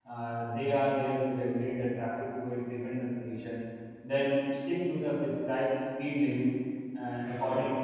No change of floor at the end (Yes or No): Yes